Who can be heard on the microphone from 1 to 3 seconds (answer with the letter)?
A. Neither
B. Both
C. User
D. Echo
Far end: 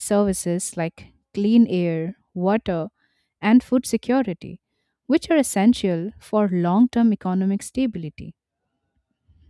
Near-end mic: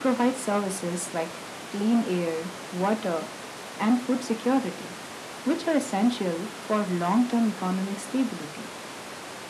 D